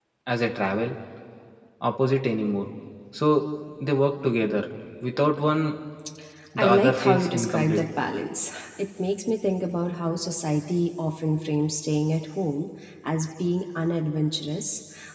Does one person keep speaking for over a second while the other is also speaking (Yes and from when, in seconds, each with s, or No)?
Yes, from 6.6 s